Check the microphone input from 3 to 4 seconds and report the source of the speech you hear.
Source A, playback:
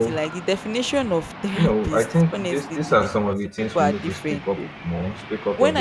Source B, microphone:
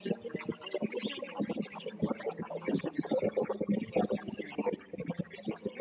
echo only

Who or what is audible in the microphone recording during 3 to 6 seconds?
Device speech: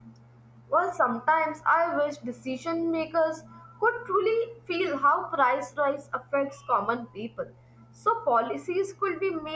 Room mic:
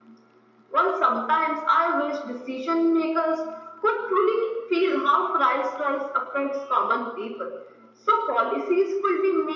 echo only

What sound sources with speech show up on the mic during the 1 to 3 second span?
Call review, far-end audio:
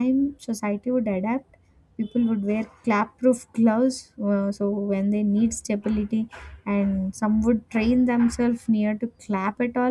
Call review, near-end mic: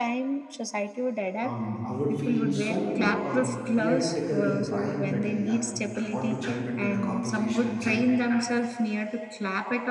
both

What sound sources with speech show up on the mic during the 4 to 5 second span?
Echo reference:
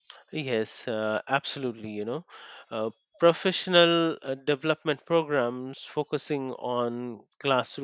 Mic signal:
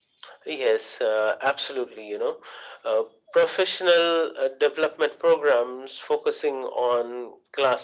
echo only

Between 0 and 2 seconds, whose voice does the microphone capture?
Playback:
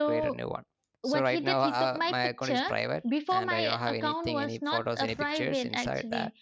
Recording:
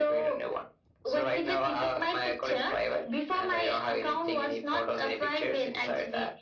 echo only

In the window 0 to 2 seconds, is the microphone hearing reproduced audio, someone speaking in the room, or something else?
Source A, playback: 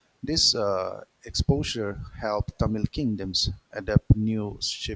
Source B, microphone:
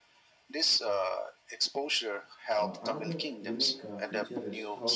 echo only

